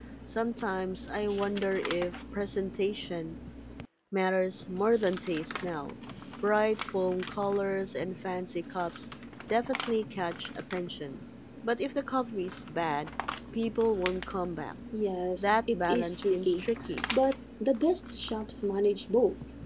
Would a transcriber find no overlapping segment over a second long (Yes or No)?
No